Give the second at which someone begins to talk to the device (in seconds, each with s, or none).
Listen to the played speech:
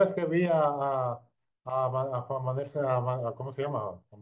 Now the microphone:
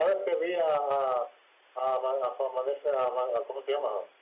none